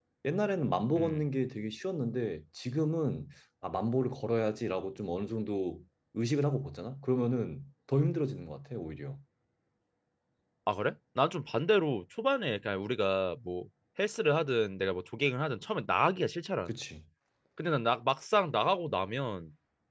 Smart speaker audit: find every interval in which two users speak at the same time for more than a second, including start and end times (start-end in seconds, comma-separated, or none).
none